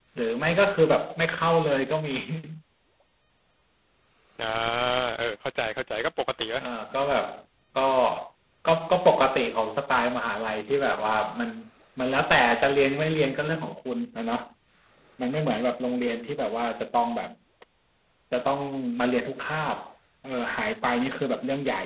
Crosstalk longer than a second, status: none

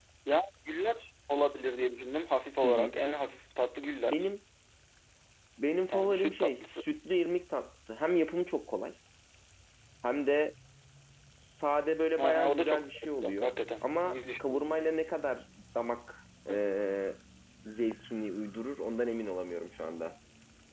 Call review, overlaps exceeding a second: present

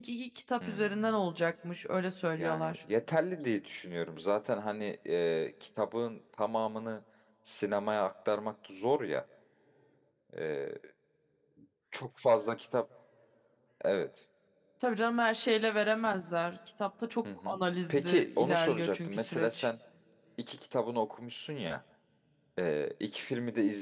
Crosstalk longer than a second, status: present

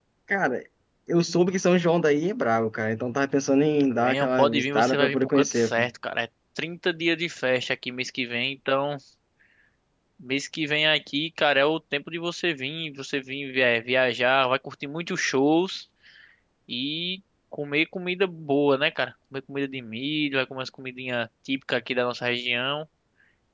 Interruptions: present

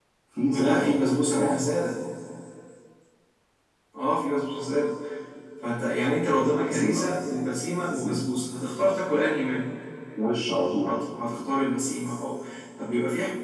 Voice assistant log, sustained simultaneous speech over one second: none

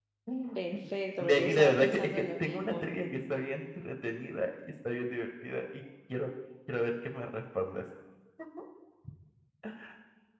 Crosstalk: present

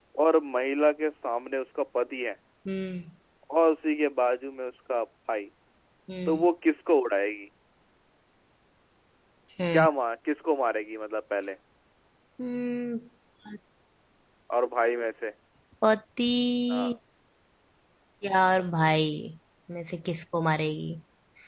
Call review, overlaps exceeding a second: none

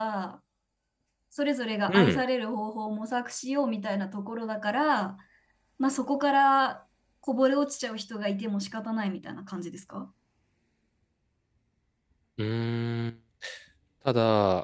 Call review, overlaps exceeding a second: none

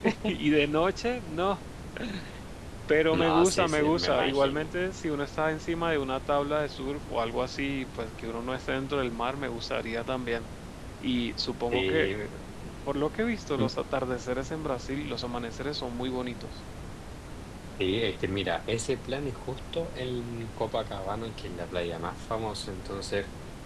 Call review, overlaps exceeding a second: present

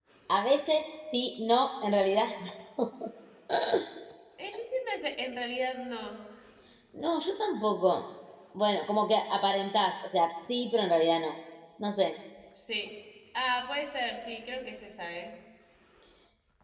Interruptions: none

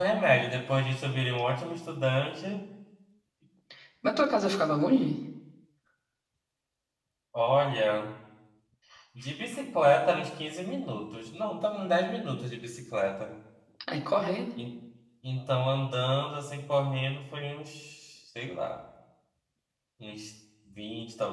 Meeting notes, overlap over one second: none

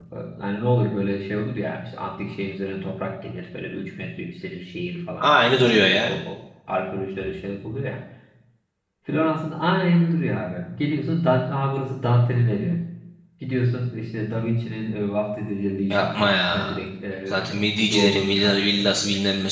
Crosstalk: present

